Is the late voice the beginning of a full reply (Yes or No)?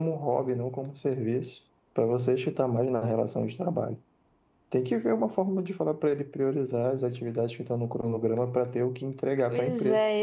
Yes